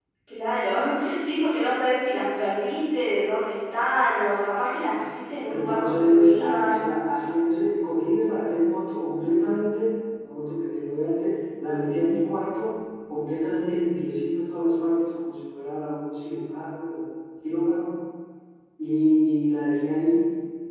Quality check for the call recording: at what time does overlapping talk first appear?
5.5 s

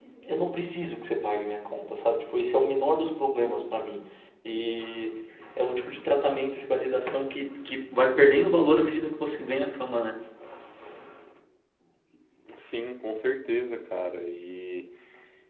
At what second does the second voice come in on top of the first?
none

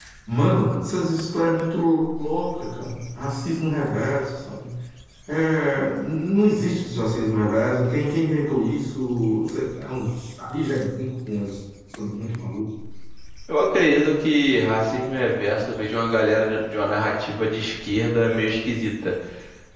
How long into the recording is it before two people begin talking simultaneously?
none

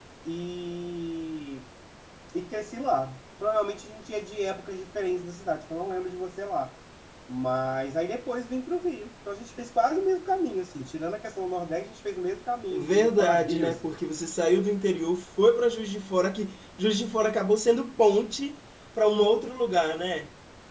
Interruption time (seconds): 12.7 s

